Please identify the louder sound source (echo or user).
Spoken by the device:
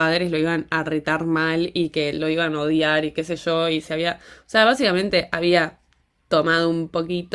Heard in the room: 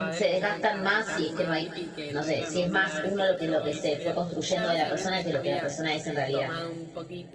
user